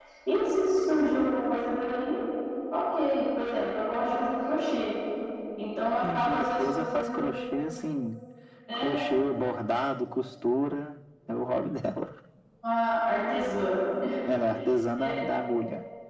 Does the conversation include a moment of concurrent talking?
Yes, from 6.0 s

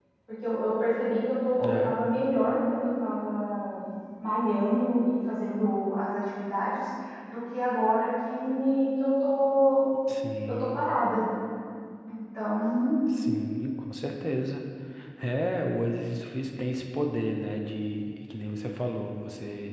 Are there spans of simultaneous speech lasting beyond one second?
No

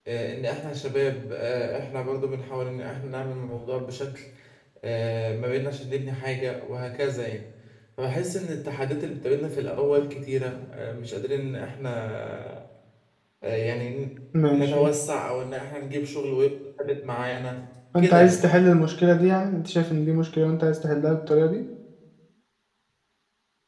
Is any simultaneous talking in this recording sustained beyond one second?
No

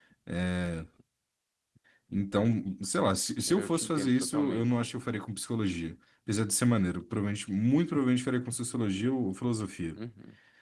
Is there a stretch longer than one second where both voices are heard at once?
Yes, from 3.5 s

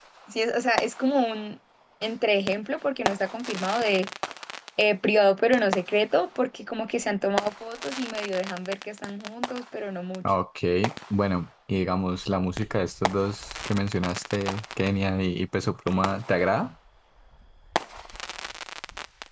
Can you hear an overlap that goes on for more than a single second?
No

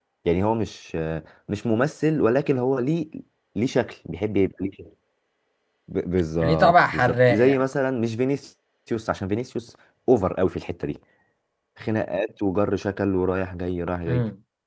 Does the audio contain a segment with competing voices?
Yes, from 6.4 s

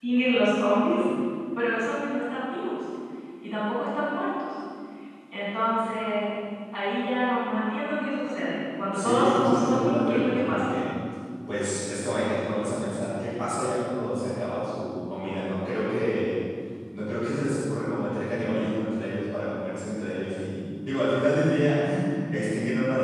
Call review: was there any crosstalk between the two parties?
Yes, from 8.9 s

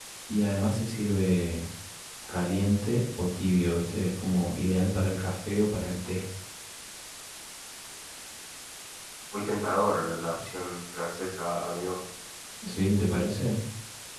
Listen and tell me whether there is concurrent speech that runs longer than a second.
No

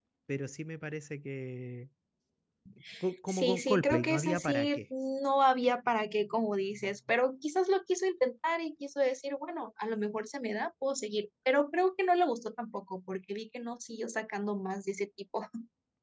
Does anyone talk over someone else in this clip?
Yes, from 3.3 s

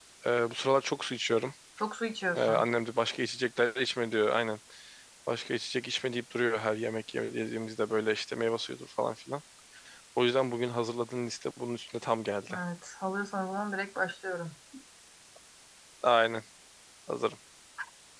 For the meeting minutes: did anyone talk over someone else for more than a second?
No

